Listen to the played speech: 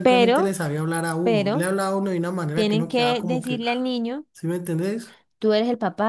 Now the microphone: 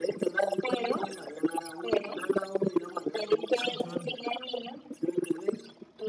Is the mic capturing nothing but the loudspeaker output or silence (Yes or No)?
No